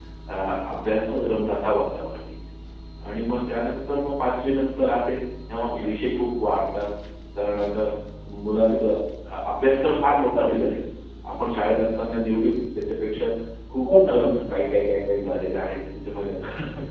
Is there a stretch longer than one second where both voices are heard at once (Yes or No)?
No